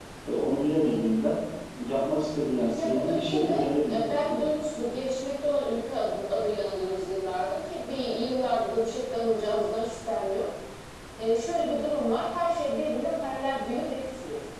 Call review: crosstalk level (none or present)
present